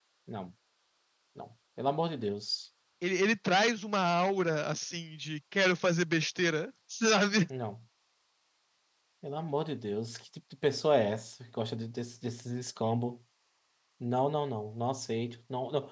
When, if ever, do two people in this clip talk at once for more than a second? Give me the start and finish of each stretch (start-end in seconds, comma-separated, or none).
none